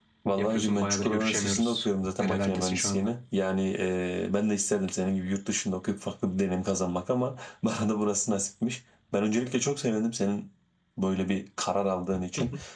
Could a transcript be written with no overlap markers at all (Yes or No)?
No